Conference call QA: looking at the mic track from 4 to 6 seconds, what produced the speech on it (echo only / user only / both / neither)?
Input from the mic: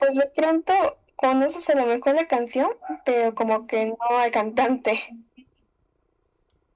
echo only